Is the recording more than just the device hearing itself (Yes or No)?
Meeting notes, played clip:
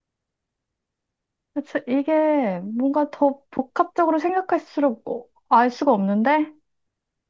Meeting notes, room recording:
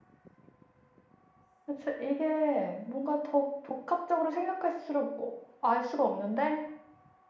No